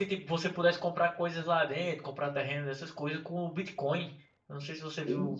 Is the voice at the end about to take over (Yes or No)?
No